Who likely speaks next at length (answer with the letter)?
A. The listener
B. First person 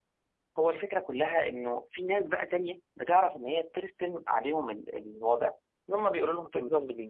A